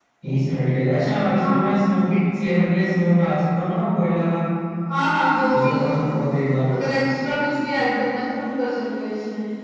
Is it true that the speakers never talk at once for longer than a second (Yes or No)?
Yes